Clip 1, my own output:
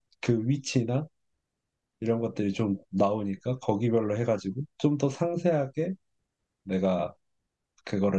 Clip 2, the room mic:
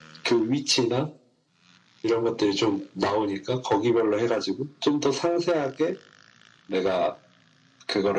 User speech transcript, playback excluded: none

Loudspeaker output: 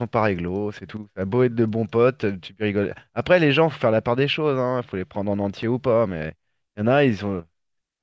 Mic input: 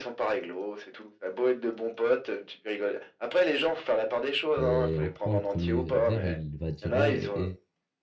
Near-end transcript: et on prend le premier verre, il va dire, ouais, et-

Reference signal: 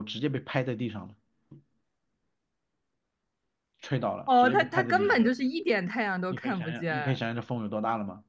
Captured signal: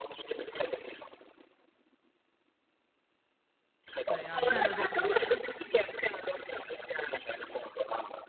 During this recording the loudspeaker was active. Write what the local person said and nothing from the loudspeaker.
怎样，站都站不稳，

